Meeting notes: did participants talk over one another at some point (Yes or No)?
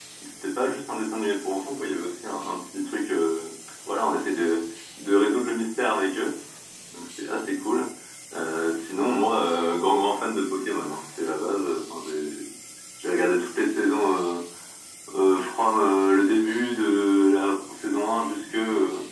No